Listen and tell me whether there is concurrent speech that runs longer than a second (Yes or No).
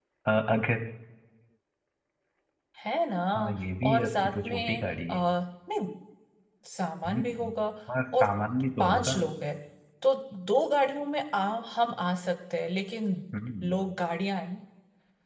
Yes